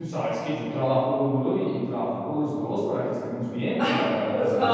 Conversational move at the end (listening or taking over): taking over